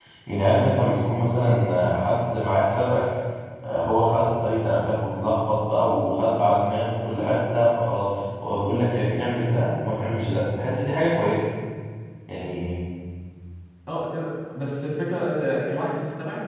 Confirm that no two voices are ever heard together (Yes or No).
Yes